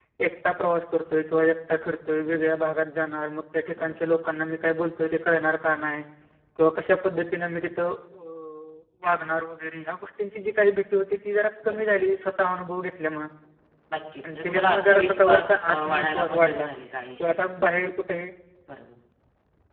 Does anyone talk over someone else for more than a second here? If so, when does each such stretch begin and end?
14.2-16.7

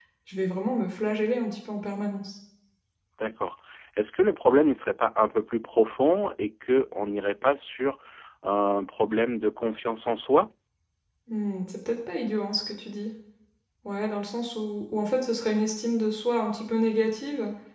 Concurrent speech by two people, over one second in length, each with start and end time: none

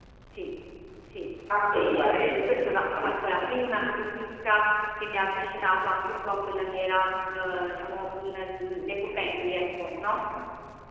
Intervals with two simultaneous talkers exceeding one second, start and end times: 1.7-3.4

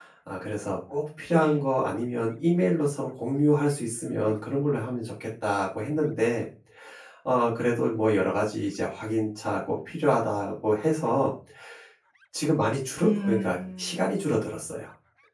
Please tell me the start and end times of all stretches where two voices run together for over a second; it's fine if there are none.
13.0-14.3

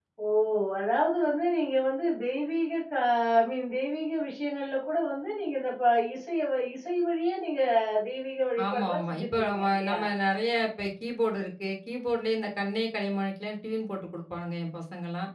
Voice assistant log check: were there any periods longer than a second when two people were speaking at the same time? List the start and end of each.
8.7-10.0

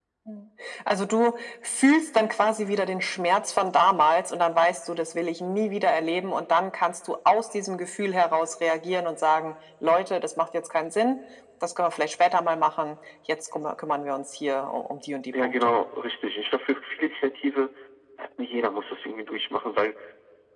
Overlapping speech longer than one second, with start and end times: none

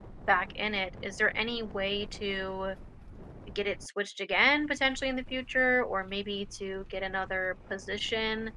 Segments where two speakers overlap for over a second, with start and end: none

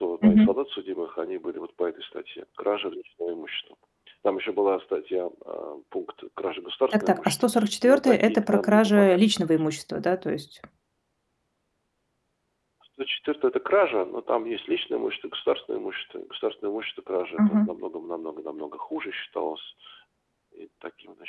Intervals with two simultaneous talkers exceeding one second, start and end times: 6.9-9.3

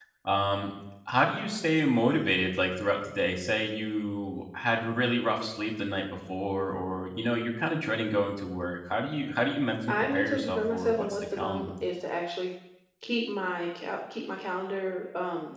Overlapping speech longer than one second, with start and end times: 9.9-11.7

